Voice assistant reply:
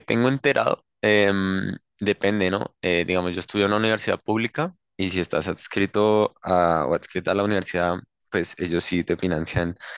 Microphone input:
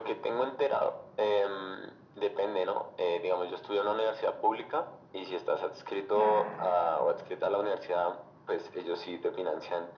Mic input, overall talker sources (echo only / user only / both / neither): both